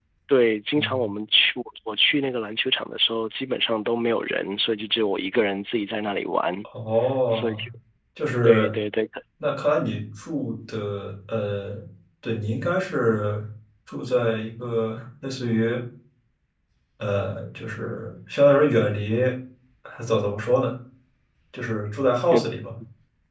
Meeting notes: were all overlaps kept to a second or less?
Yes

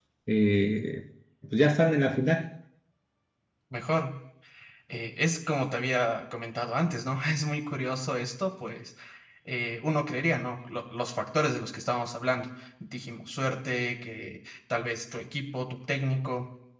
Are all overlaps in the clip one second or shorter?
Yes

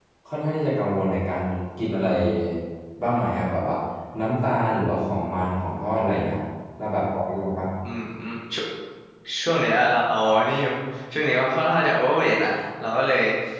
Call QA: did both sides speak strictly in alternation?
Yes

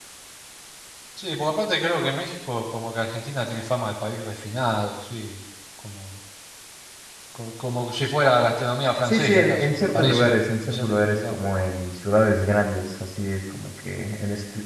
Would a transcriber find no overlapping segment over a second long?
No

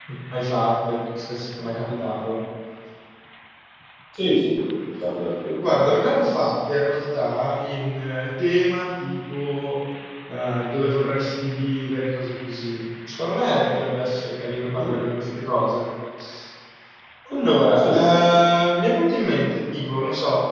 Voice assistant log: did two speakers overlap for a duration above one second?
No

